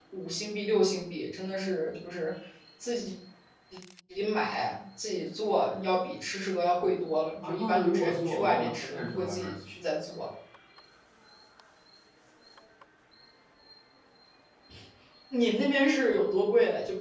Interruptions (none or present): present